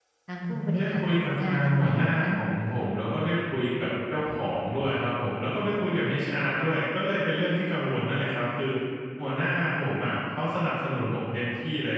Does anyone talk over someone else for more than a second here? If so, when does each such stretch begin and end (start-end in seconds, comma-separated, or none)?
0.5-2.3